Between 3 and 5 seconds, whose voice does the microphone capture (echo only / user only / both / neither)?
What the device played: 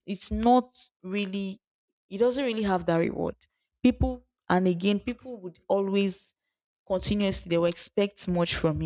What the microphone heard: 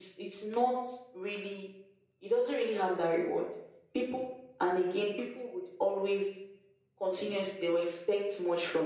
echo only